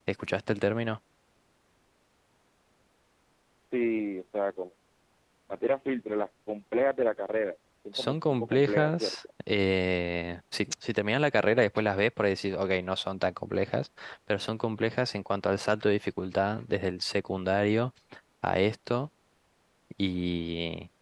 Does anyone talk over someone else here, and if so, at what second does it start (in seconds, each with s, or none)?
7.9 s